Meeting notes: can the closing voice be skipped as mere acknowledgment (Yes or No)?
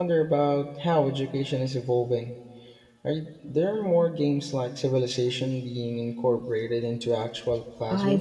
No